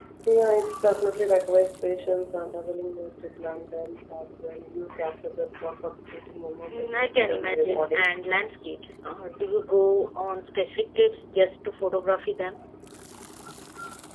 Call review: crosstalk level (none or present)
present